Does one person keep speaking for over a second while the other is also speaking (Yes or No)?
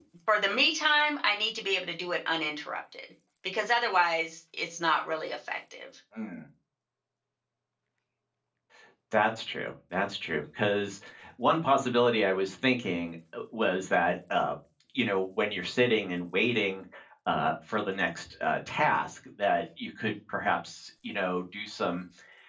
No